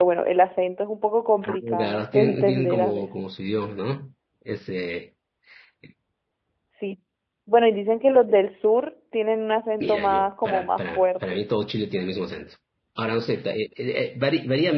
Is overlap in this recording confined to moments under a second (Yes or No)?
No